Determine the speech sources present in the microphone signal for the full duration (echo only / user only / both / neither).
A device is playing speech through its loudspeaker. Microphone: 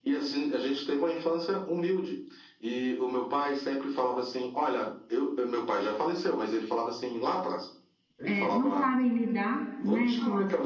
both